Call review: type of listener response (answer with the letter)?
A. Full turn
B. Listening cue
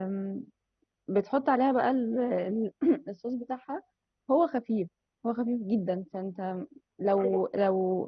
B